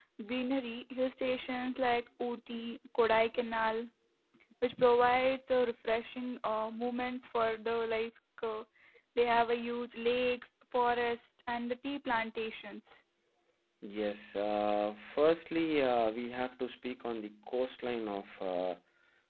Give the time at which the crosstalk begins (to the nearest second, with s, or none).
none